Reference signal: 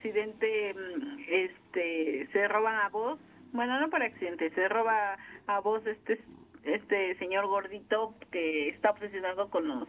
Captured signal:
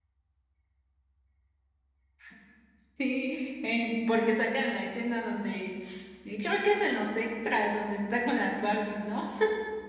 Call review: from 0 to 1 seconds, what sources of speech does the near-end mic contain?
neither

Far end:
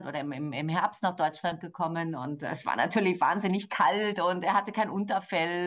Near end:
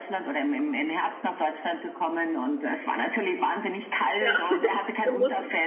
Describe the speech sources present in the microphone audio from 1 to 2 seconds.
echo only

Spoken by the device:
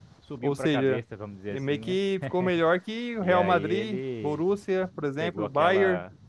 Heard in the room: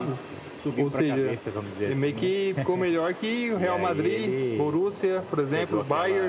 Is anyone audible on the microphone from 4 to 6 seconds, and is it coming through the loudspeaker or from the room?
echo only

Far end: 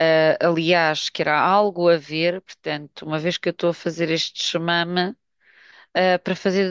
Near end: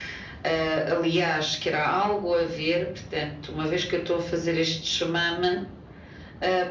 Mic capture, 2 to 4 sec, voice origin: echo only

